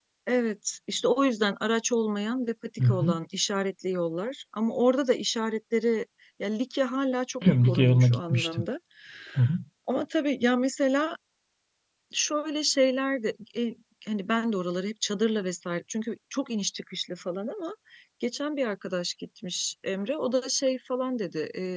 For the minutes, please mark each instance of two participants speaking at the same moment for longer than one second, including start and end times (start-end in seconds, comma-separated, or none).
7.4-8.7